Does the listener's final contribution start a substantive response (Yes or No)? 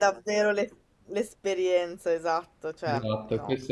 Yes